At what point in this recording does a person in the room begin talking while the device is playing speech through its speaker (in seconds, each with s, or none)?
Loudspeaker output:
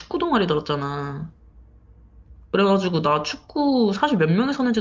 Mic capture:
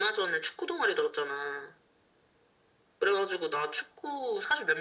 none